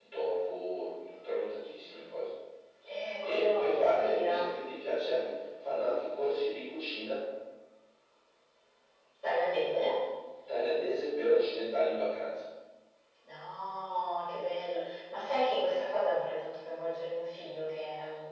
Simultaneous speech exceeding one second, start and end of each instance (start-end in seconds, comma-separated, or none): 3.2-4.5